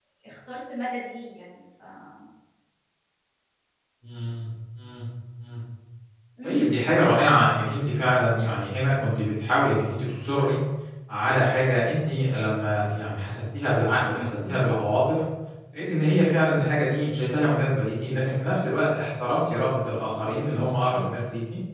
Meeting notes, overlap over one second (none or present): none